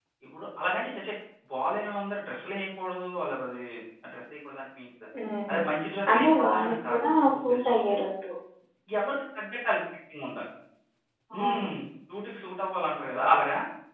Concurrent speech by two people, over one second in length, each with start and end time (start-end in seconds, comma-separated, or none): 6.1-7.8